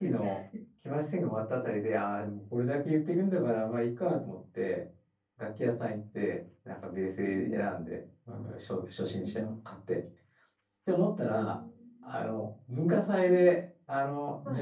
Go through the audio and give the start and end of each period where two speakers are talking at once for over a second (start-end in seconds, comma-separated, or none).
none